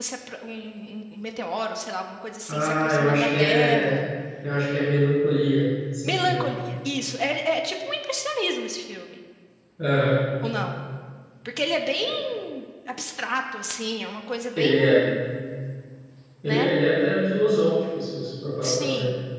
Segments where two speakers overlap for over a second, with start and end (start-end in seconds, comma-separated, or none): 2.5-4.0